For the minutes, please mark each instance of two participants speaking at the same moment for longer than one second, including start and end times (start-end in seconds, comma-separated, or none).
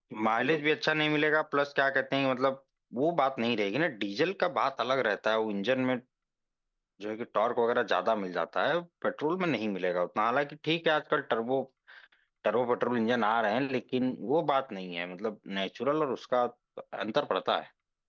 none